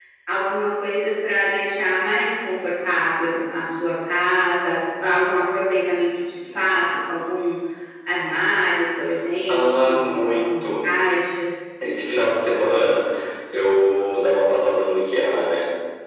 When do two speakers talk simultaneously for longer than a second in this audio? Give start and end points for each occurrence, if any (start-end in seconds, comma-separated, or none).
9.5-10.8